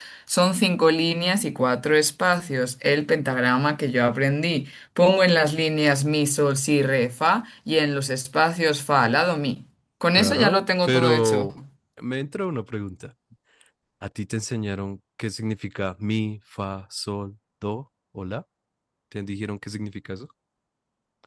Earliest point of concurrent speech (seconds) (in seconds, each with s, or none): 10.1 s